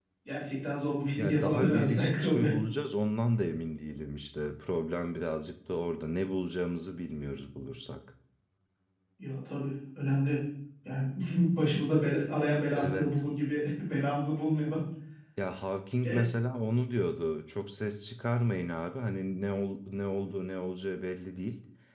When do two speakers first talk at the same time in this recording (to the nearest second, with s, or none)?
1 s